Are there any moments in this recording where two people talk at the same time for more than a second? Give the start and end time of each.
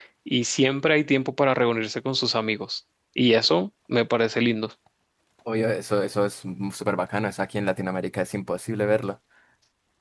none

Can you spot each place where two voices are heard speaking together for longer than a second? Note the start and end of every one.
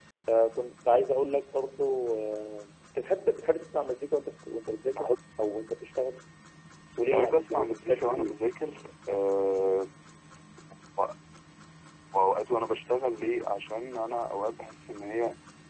7.1-8.4

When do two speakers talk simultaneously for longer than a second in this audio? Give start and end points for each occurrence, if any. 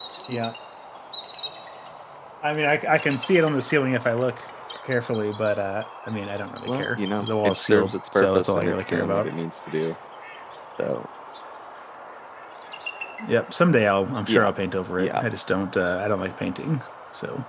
6.7-9.3

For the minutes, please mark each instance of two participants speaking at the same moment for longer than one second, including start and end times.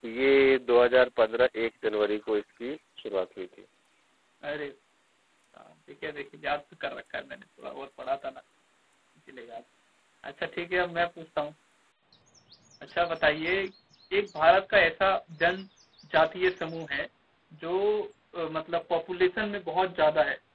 none

